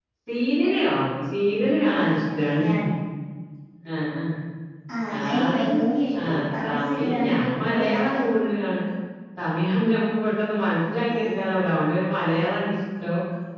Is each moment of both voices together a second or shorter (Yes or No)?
No